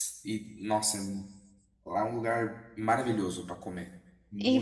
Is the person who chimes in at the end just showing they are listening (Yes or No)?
No